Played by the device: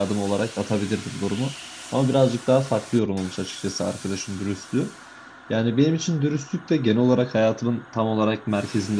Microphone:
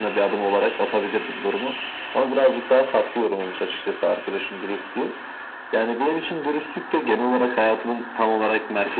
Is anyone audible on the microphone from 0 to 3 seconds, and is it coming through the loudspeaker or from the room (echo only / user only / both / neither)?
echo only